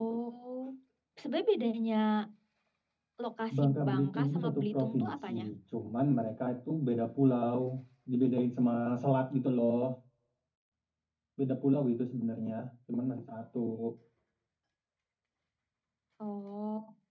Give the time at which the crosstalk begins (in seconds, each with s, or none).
3.6 s